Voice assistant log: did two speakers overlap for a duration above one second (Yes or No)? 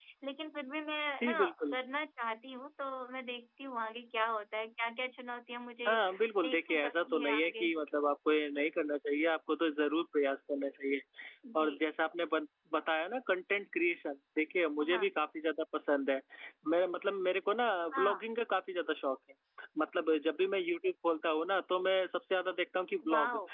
Yes